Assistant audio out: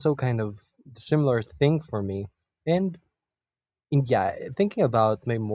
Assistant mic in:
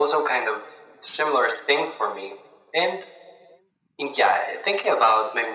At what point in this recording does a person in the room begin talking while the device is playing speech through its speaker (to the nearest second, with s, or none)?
none